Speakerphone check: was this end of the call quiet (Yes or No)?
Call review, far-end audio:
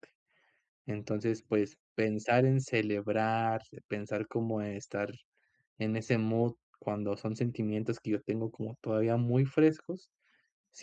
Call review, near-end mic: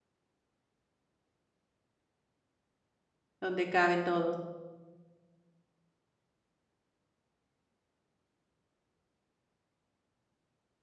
No